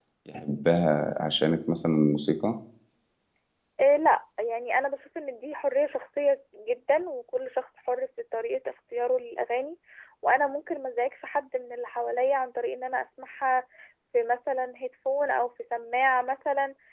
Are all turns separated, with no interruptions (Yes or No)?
Yes